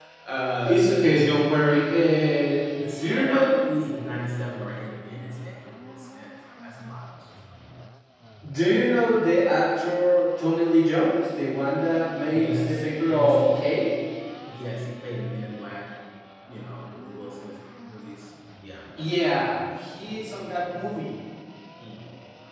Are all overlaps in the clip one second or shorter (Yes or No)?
No